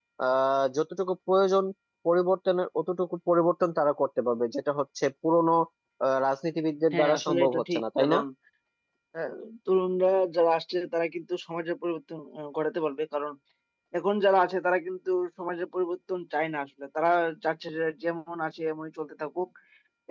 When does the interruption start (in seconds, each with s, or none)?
6.9 s